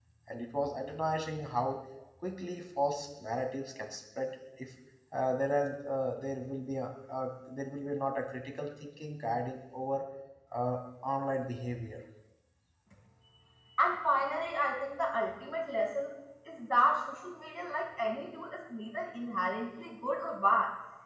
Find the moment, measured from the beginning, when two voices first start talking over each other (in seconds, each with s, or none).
none